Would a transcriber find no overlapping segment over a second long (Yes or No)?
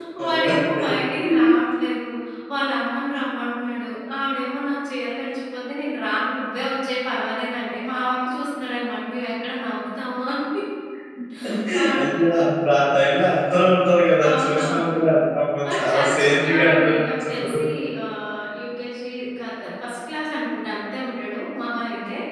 No